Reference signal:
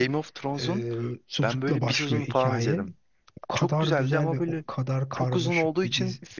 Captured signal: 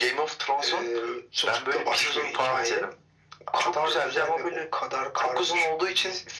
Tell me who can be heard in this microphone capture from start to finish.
echo only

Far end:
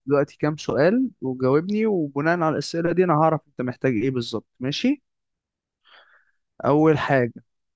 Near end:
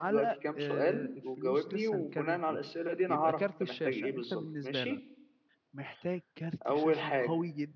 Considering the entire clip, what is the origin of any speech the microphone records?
both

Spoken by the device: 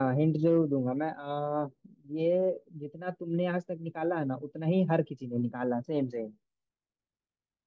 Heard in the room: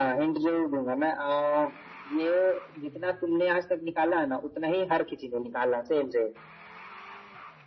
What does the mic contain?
echo only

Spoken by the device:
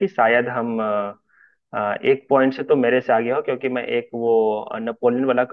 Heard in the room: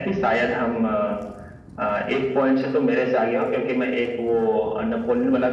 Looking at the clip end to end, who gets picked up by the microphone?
echo only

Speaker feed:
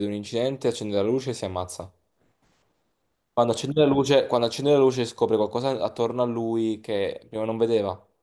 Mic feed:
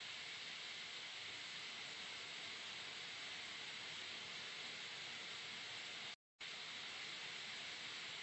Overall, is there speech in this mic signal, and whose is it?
neither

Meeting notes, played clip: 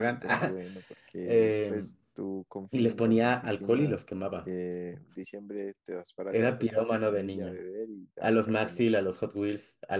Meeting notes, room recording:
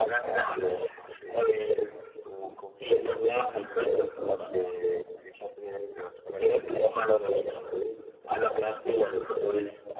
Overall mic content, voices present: echo only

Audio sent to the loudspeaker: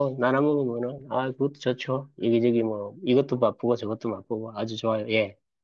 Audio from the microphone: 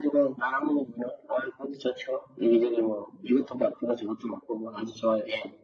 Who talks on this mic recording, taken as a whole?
echo only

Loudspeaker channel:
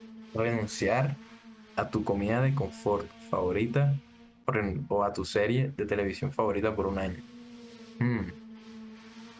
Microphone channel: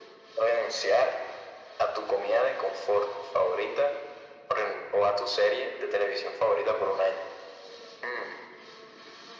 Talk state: echo only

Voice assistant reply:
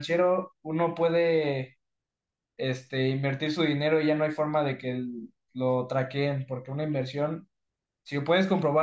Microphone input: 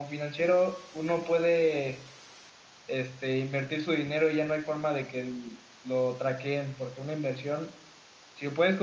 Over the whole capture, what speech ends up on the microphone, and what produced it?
echo only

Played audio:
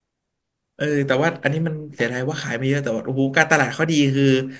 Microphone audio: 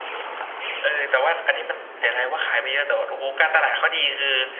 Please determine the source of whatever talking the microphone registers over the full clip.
echo only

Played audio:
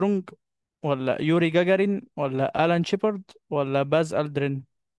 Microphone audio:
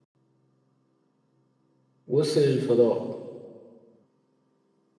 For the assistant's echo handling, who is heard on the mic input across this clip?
user only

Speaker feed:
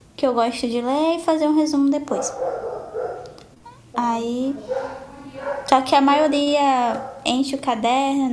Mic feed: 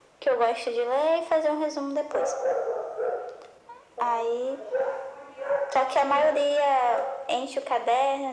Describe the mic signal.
echo only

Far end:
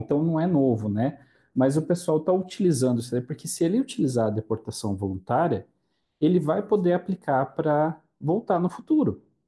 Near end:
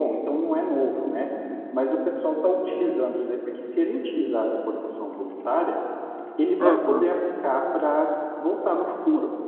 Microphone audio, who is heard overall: both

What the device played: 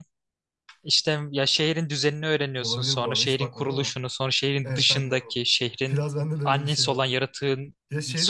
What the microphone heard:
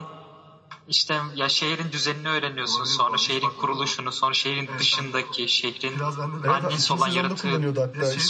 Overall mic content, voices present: both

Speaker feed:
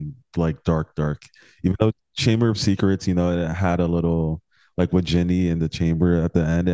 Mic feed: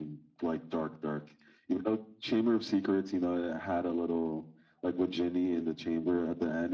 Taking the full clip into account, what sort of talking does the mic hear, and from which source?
echo only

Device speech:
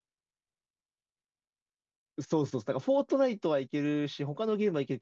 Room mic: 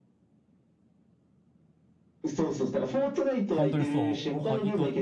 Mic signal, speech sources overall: both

